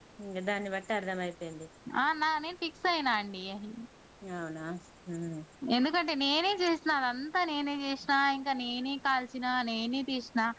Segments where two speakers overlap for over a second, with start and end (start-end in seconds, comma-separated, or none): none